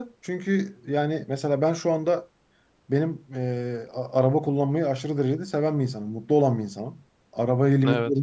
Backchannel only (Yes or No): Yes